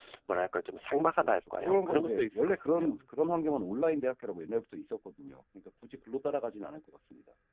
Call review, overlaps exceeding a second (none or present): present